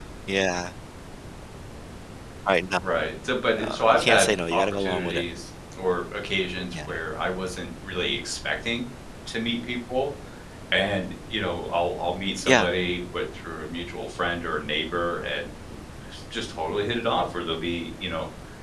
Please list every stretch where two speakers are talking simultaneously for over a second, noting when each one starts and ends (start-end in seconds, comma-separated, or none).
3.6-5.2